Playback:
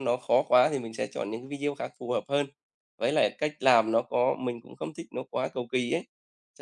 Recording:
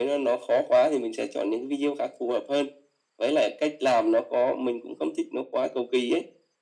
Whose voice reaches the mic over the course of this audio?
echo only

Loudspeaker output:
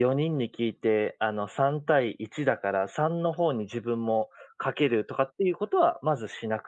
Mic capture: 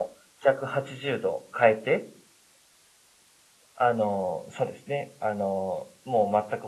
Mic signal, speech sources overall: user only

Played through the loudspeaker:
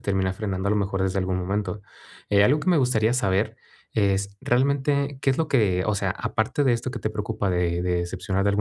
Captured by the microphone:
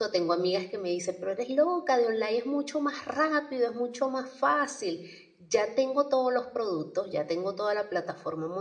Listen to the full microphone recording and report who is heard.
user only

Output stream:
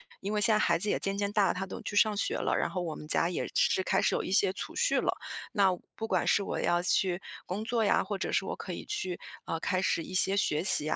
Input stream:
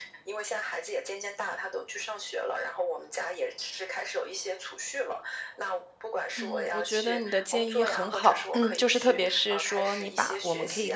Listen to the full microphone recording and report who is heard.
both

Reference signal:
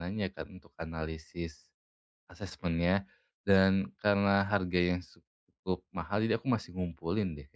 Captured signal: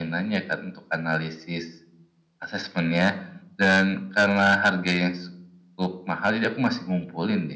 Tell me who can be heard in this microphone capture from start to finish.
echo only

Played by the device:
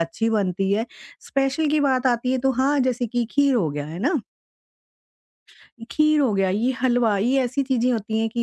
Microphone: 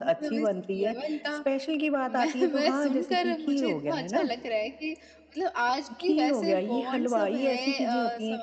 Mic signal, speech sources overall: both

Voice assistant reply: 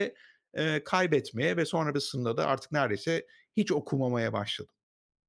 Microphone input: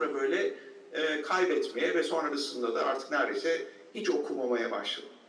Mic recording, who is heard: echo only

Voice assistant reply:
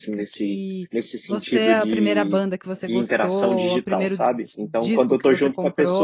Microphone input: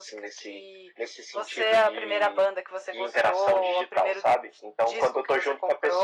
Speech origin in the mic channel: echo only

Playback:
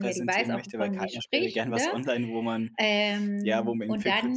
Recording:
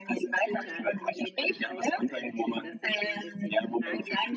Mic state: both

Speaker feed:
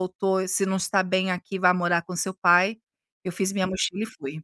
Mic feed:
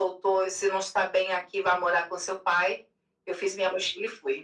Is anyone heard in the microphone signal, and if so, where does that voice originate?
echo only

